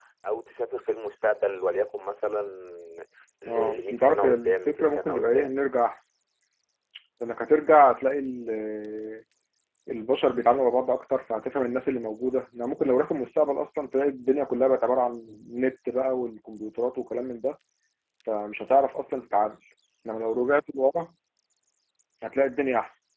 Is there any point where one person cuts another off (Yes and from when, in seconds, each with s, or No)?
Yes, from 3.5 s